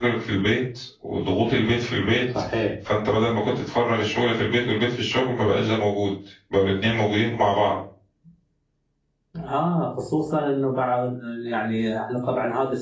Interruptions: none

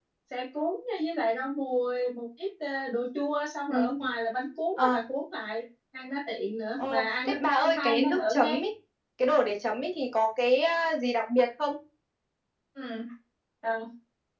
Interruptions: present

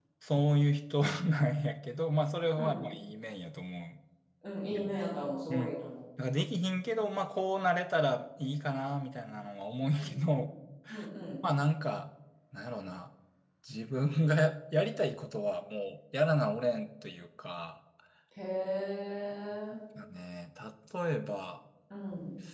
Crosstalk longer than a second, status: none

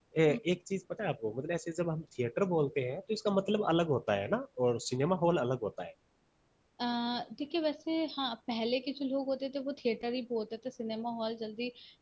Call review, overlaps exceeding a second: none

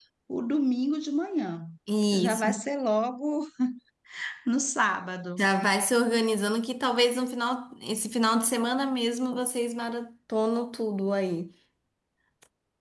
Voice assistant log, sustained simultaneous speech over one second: none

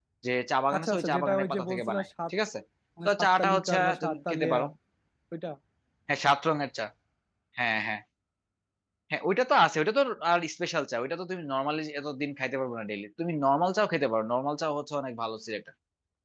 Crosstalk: present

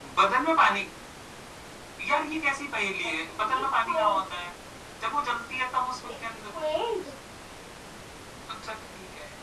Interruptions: present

